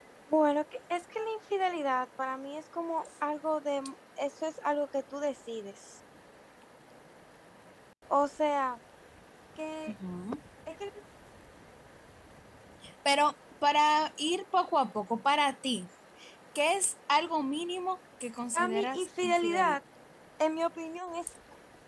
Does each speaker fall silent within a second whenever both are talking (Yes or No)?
No